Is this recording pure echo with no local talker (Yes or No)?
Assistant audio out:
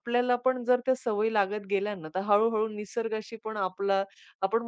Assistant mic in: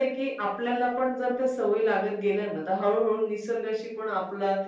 Yes